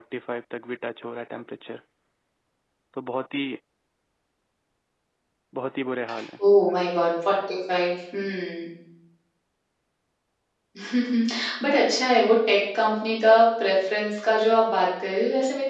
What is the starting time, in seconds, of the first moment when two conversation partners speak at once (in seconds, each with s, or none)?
none